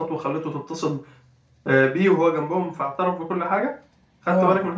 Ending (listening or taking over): taking over